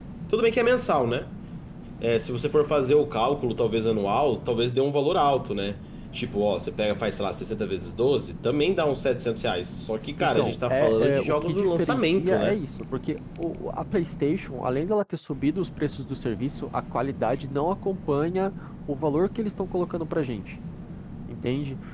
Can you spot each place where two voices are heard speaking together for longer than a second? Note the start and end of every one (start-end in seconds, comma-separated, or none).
10.2-12.6